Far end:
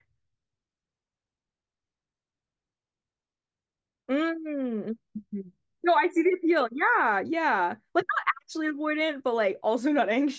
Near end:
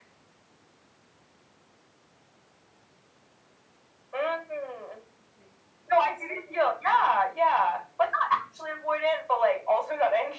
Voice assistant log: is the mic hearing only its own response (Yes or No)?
Yes